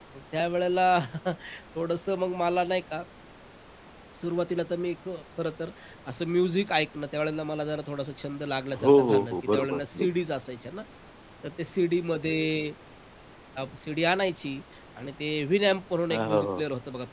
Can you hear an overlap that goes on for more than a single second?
Yes, from 8.8 s

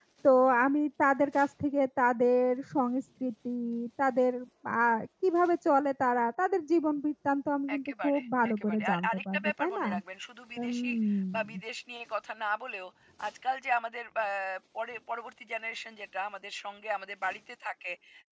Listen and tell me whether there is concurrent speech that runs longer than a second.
Yes, from 7.8 s

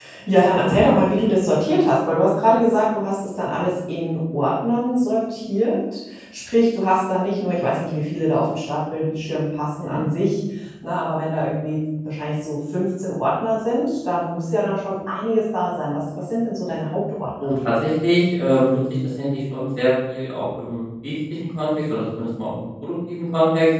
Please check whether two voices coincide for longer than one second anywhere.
No

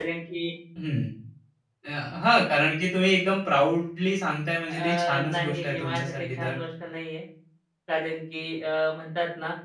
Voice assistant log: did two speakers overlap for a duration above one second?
Yes, from 4.7 s

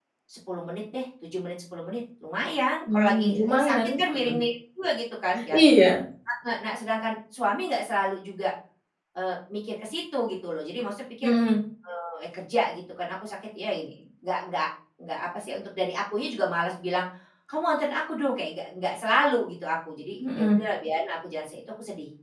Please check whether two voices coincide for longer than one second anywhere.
Yes, from 2.9 s

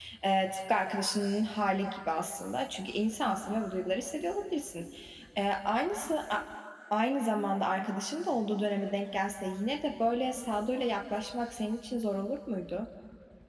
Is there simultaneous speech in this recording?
No

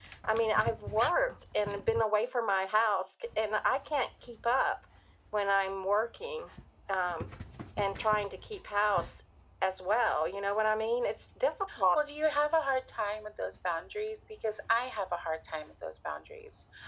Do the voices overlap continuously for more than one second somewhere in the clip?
No

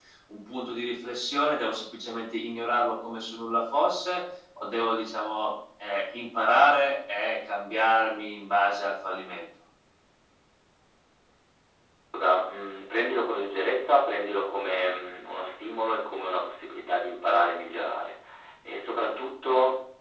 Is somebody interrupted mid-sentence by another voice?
No

